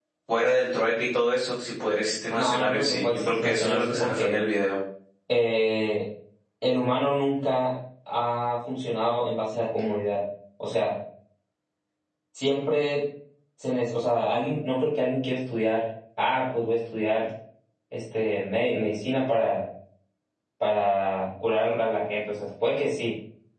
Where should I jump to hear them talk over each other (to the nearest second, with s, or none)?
2 s